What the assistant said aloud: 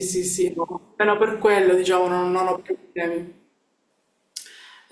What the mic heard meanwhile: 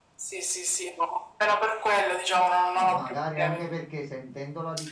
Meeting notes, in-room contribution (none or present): present